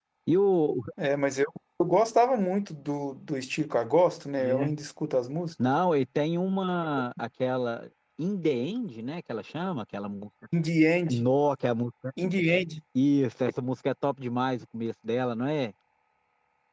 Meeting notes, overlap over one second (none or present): none